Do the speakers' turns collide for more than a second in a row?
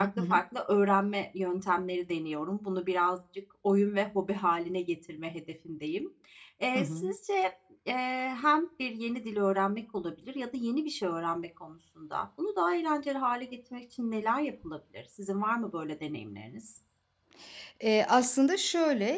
No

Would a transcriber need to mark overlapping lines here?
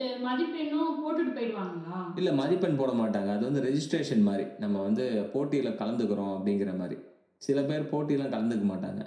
No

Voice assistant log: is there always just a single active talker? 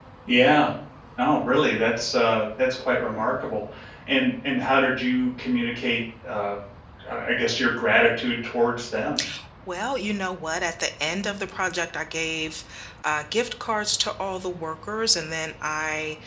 Yes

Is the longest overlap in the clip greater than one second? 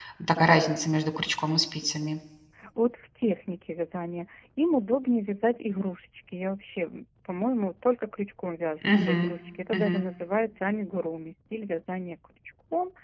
No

